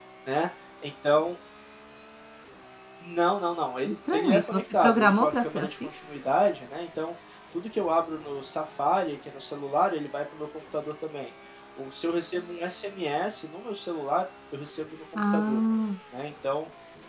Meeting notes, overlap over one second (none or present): present